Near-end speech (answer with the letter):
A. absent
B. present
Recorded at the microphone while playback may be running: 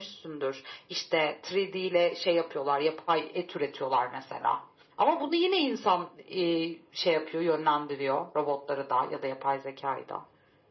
A